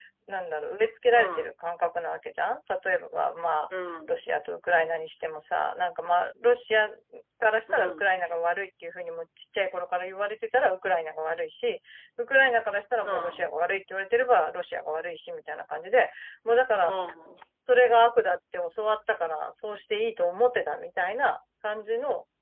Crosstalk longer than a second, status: none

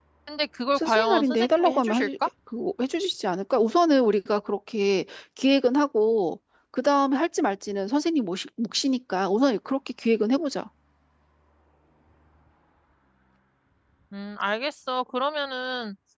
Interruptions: present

